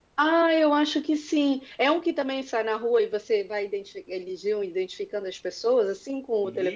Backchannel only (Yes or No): No